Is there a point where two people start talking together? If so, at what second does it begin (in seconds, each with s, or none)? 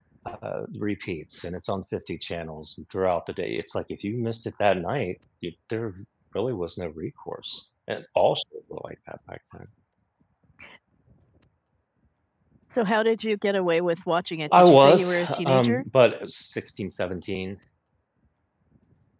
14.5 s